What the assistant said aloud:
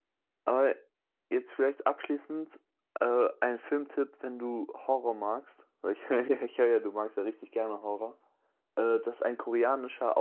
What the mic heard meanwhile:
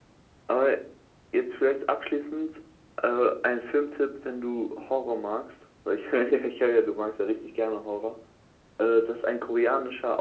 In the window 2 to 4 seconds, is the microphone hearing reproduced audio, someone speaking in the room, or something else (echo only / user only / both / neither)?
echo only